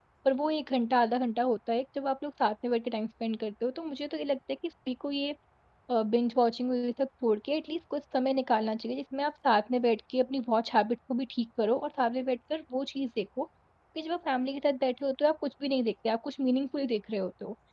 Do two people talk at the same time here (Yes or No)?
No